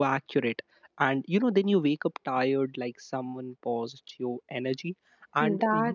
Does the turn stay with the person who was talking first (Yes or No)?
Yes